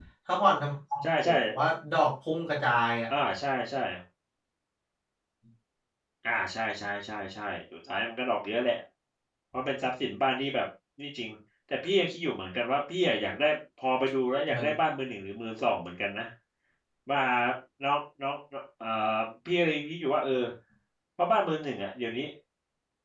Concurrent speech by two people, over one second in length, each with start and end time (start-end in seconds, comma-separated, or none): none